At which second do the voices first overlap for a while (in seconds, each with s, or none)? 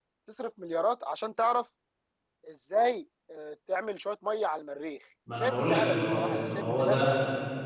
5.3 s